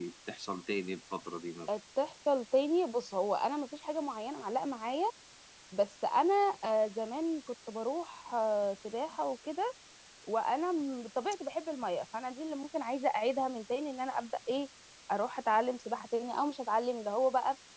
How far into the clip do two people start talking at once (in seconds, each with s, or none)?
none